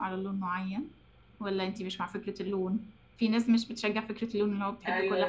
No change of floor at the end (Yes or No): No